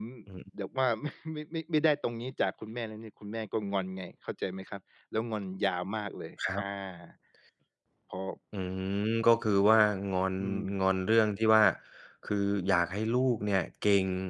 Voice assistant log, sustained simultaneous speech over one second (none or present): none